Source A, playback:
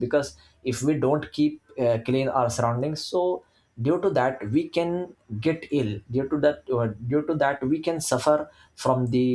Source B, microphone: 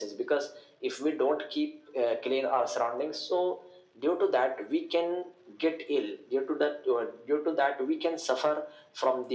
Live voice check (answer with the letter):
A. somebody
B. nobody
B